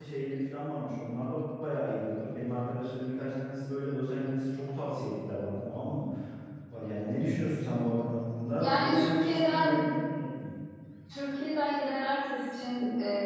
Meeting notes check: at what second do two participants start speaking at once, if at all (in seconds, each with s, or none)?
8.6 s